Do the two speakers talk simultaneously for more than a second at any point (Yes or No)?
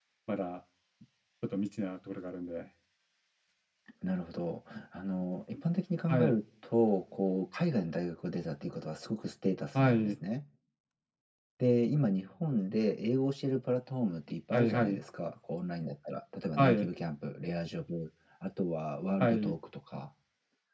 No